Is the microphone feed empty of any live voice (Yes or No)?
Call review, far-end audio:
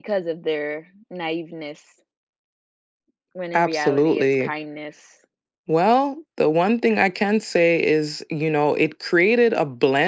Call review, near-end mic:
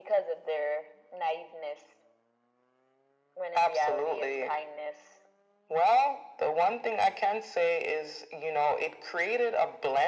Yes